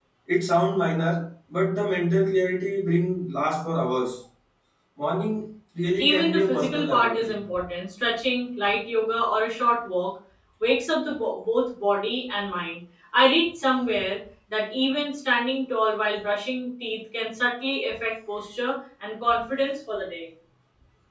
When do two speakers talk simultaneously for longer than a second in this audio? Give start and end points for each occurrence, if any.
6.0-7.4

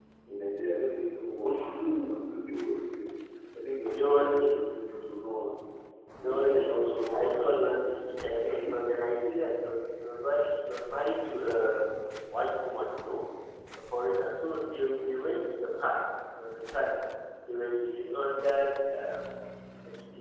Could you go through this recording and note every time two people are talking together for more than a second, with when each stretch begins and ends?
6.2-7.6

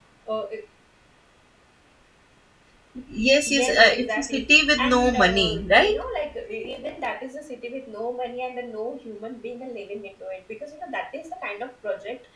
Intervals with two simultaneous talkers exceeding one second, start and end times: 3.5-6.0

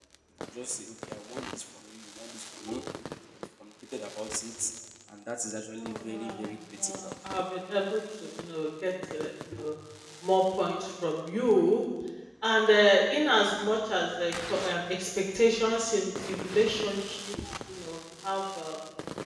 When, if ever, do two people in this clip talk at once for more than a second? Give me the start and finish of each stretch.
5.8-7.1

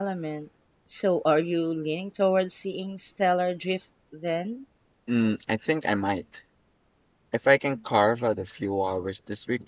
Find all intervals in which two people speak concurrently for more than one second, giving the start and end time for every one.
none

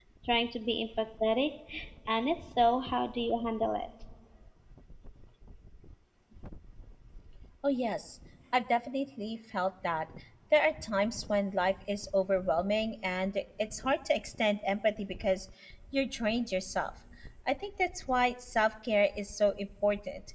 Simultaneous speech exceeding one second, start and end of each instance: none

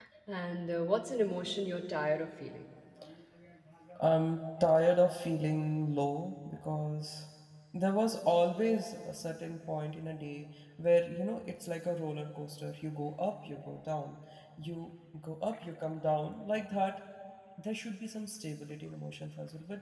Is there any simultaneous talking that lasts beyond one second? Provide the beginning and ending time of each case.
none

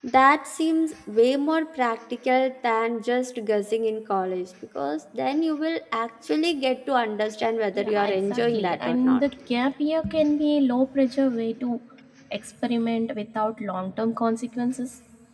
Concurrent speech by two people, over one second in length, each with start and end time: 7.8-9.2

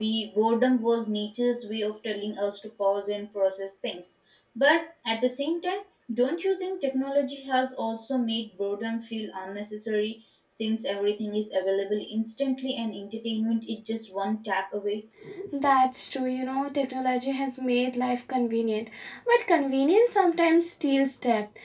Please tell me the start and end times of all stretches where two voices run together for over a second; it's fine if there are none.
none

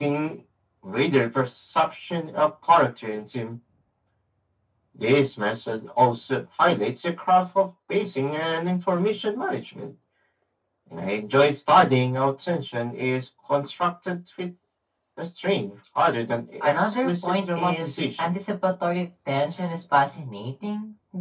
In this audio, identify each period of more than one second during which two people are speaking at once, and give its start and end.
16.6-18.4

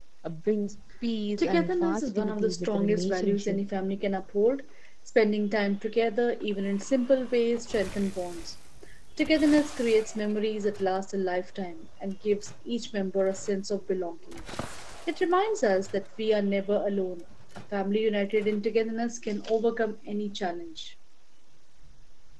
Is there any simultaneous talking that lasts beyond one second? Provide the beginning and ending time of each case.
1.4-3.6

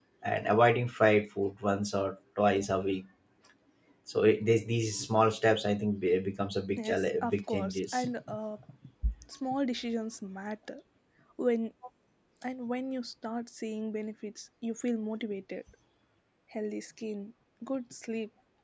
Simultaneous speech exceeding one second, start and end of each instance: 6.8-8.0

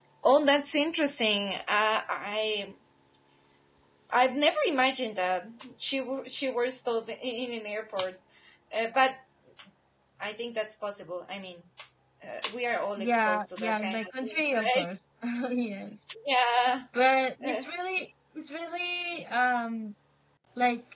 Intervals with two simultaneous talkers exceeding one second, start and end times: 13.0-14.9

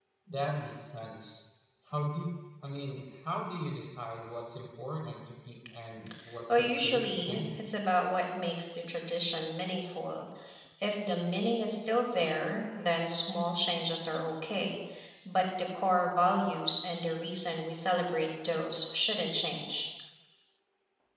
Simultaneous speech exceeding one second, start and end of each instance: 6.5-7.7

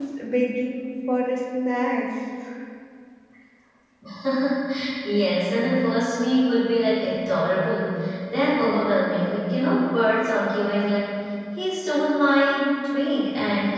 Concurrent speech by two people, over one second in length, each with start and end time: none

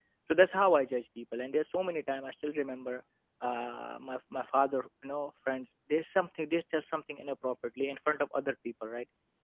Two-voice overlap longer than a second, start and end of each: none

